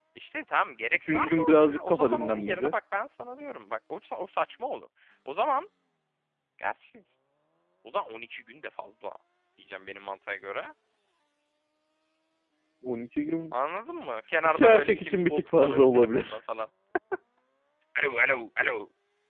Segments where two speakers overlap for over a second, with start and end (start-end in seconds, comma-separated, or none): 0.9-2.7, 14.4-16.4